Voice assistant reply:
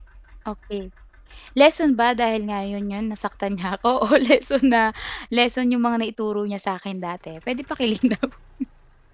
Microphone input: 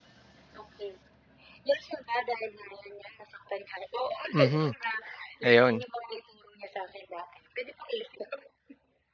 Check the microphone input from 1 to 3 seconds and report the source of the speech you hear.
echo only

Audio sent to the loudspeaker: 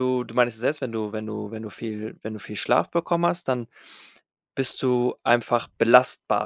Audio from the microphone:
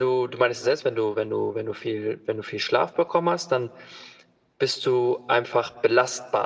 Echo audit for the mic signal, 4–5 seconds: echo only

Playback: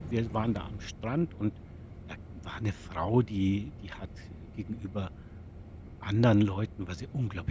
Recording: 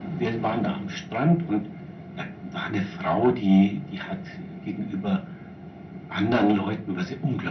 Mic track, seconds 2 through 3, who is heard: echo only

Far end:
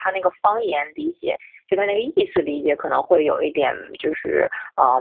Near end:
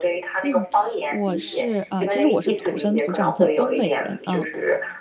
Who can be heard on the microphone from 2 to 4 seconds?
both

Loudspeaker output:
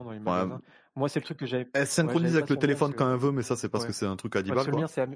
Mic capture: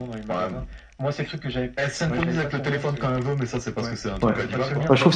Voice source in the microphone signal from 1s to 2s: echo only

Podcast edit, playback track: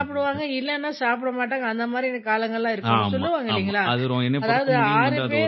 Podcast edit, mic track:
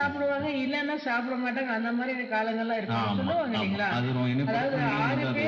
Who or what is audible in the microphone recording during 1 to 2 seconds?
echo only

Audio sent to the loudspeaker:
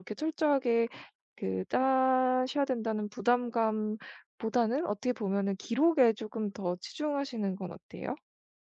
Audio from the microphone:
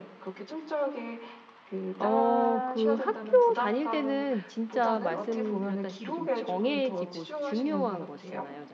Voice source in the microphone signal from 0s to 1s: echo only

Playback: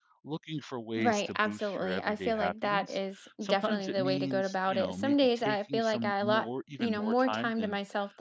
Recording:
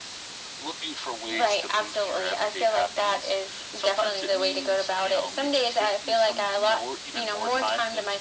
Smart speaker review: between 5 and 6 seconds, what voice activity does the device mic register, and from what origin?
echo only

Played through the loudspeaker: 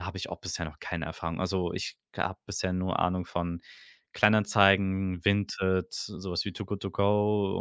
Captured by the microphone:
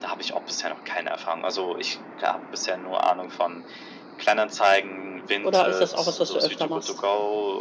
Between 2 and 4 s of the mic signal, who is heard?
echo only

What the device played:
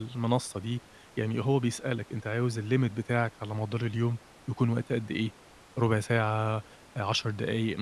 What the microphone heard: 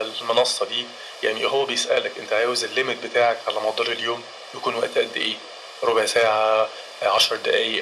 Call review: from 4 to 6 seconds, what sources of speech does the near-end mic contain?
echo only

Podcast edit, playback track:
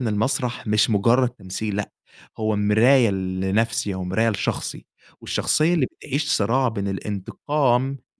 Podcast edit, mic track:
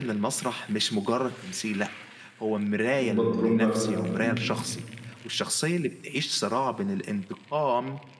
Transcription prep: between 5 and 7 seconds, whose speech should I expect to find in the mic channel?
echo only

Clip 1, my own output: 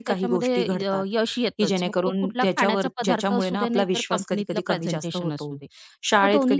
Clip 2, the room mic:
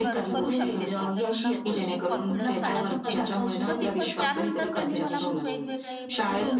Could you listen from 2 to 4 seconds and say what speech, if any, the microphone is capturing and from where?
both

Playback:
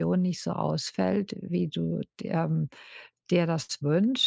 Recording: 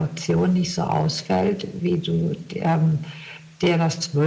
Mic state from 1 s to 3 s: echo only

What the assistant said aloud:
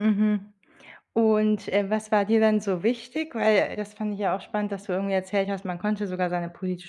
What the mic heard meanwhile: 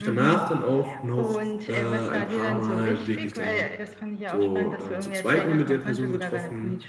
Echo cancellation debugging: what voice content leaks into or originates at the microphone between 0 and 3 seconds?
both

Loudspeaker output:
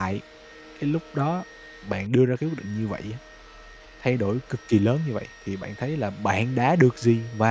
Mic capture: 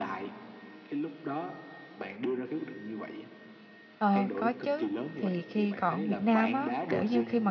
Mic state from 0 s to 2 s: echo only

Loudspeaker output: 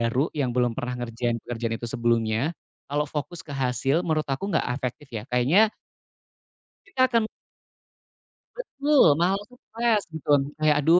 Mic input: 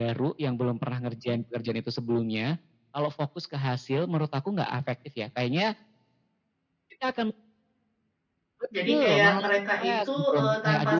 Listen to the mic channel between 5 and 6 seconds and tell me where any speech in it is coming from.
echo only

